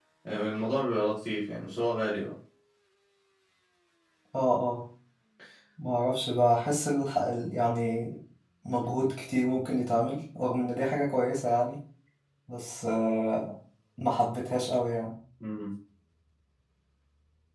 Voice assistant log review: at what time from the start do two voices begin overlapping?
none

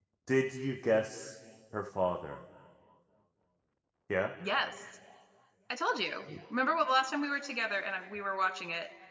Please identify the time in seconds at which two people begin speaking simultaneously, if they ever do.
none

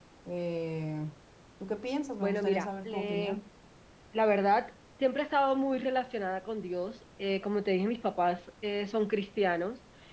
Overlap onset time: 2.2 s

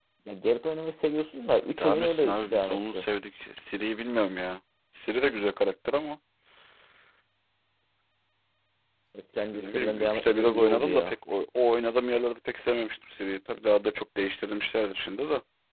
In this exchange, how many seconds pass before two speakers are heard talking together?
1.8 s

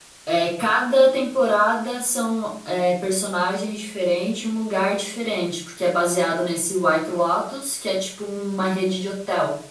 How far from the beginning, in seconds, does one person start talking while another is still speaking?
none

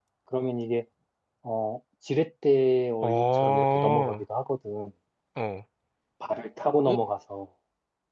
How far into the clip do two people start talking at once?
3.0 s

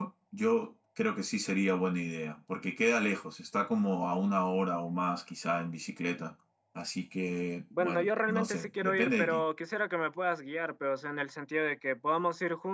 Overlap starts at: 7.7 s

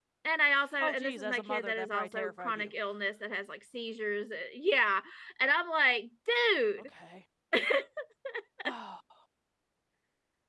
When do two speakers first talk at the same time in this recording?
0.8 s

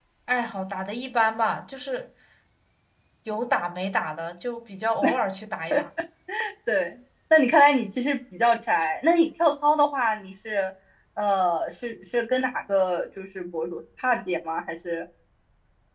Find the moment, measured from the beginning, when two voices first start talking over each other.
none

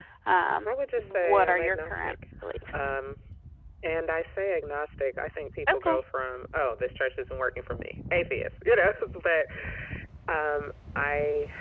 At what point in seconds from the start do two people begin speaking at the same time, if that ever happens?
0.6 s

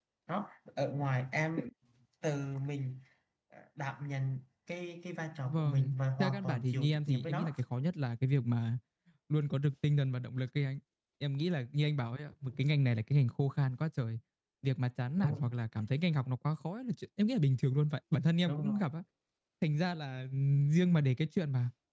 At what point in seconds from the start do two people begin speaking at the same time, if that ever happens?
5.5 s

